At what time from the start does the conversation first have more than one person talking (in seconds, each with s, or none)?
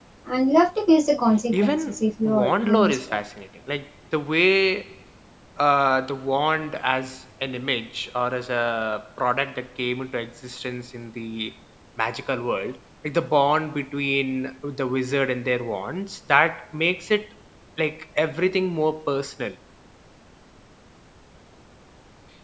1.5 s